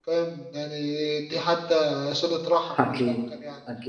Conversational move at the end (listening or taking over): taking over